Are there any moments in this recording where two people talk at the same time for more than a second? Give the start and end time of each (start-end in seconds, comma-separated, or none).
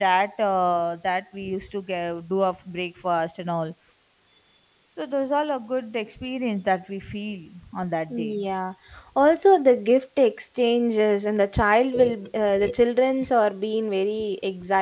none